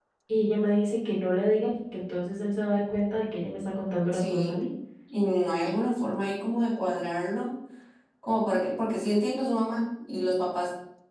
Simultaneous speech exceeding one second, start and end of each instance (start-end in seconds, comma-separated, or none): none